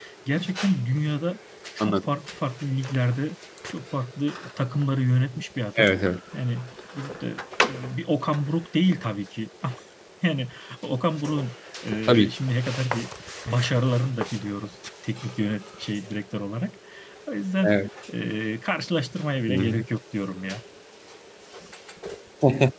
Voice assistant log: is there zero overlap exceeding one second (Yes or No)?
Yes